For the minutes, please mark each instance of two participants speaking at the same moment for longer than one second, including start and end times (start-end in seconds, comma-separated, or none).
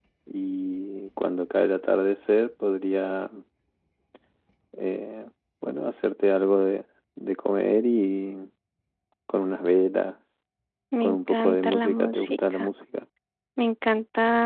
11.0-12.6